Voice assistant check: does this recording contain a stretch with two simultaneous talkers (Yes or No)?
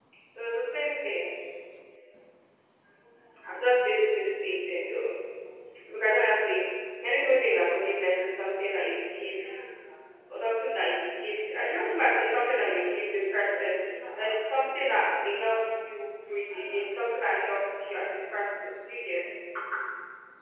No